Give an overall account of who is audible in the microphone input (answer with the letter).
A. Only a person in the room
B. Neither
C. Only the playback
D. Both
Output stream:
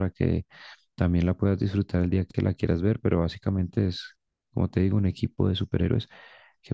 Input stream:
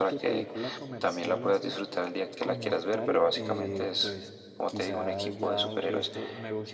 D